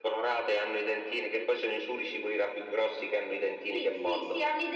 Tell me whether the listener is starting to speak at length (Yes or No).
Yes